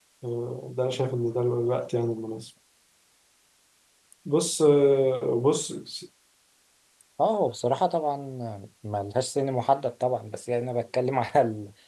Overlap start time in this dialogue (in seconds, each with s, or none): none